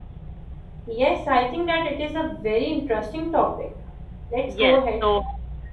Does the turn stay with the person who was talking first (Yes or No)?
No